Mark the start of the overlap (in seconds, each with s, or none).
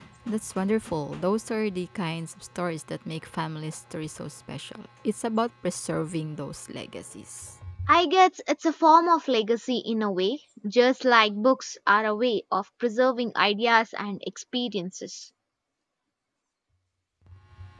none